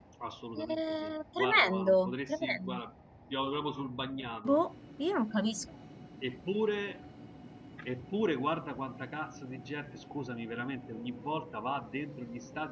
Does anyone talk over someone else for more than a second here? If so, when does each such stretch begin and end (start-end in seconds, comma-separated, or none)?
0.6-2.8